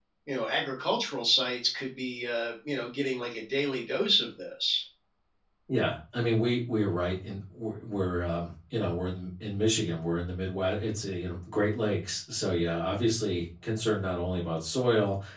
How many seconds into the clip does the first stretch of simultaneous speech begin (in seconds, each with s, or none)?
none